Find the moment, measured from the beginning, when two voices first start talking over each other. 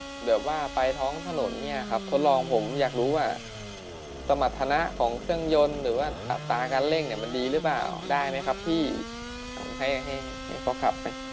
none

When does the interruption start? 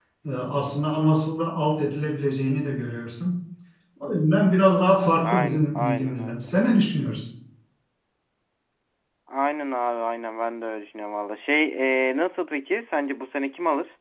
5 s

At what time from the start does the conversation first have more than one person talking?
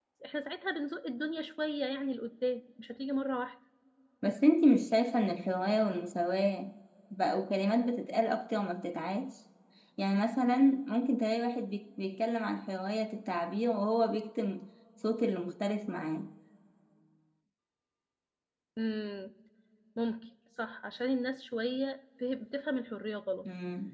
none

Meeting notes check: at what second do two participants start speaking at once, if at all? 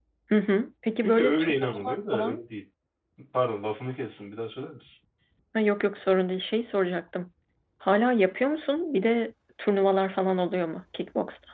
1 s

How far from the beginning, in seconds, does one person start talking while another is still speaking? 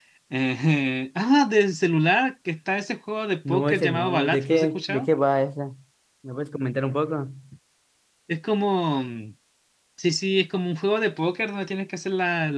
3 s

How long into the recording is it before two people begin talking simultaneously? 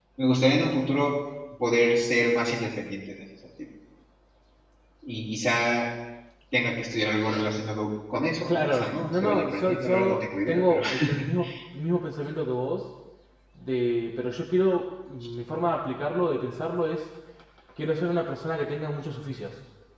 8 s

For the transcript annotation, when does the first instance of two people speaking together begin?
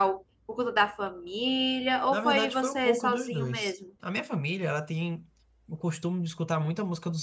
2 s

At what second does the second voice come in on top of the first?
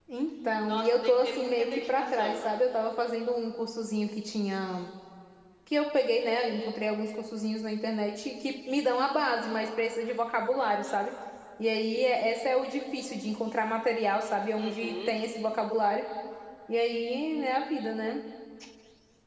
1 s

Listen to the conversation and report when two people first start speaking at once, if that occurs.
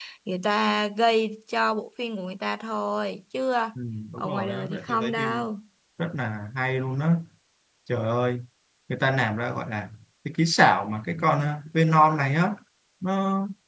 4 s

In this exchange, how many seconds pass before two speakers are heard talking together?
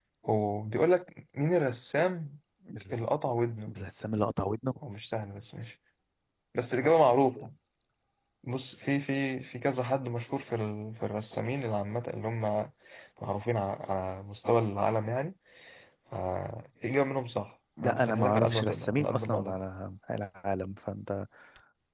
18 s

